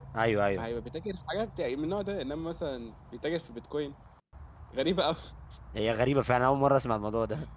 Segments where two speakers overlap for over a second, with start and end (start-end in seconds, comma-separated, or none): none